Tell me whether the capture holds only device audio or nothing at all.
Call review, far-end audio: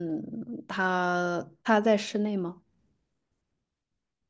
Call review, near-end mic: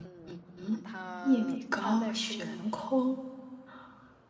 No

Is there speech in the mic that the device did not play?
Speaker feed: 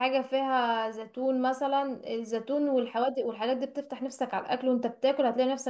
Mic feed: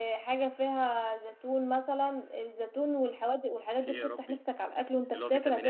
Yes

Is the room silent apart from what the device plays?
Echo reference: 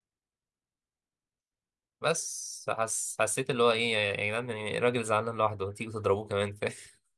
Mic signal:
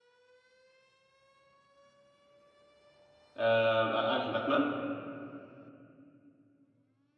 No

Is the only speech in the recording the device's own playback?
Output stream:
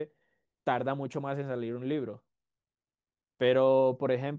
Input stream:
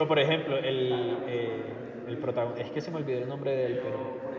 No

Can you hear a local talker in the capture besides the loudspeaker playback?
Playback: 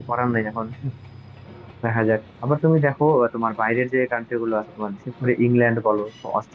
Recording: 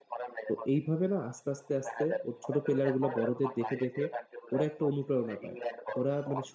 Yes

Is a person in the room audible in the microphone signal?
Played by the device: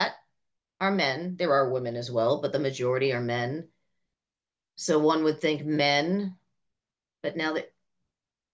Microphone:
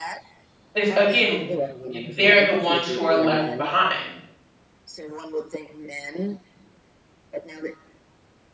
Yes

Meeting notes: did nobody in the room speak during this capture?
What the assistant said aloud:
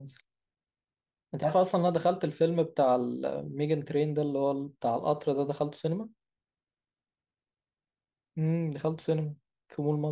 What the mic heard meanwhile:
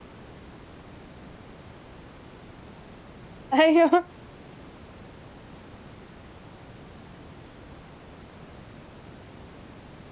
No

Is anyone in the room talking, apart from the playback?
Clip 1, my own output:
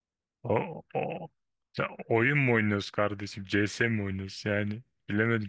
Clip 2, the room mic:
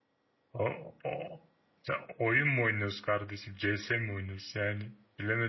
No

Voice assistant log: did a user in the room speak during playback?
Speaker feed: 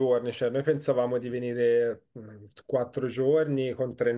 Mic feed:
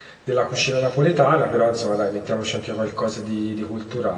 Yes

